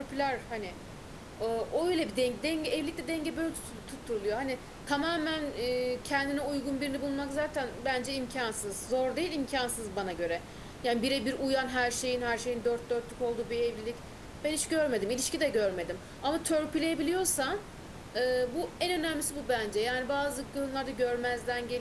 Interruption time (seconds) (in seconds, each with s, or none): none